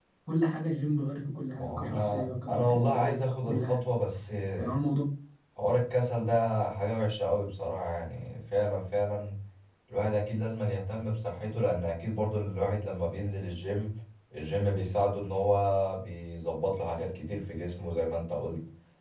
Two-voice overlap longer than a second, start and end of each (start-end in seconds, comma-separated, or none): 1.6-3.8